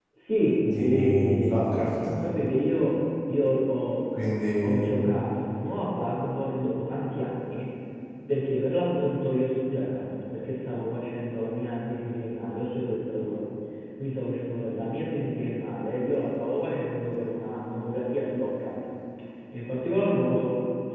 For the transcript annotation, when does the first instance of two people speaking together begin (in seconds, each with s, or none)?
0.8 s